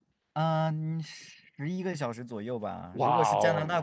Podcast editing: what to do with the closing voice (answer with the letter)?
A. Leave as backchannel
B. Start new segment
A